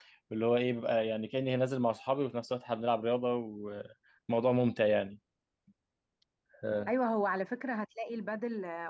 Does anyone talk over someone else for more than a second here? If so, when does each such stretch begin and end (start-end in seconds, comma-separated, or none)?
none